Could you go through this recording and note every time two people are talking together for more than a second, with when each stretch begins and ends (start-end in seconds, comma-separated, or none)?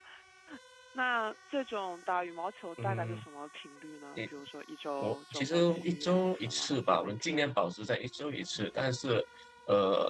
5.0-7.5